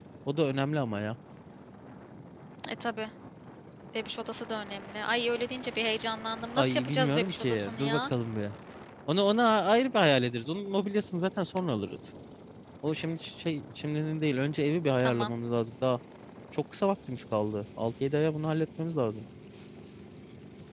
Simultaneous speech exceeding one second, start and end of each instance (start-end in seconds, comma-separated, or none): 6.6-8.0